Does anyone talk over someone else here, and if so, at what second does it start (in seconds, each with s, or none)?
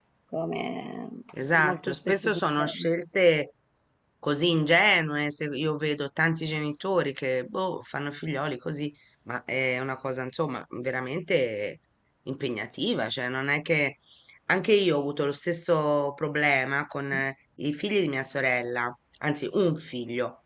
1.6 s